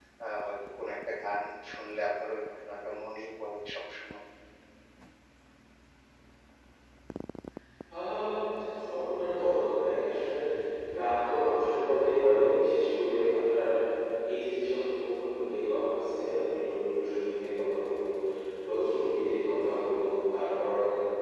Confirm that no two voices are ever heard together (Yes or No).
Yes